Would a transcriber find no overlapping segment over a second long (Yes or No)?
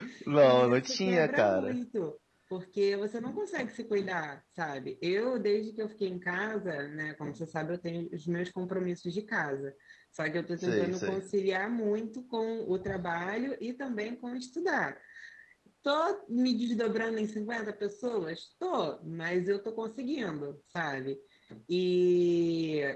No